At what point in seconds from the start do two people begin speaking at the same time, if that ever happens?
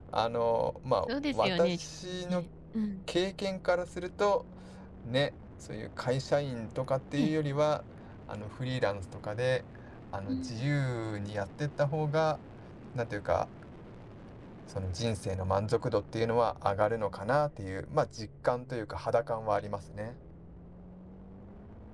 1.1 s

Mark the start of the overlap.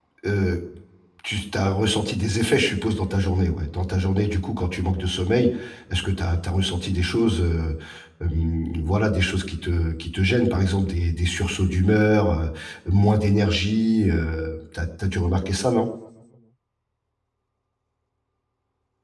none

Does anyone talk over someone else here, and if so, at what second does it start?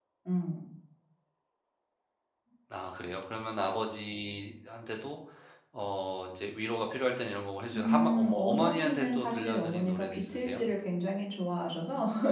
7.7 s

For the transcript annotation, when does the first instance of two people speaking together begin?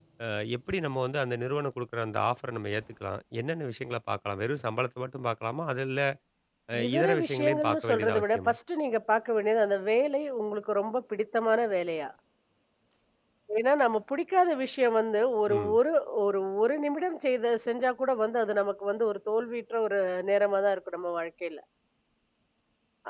6.8 s

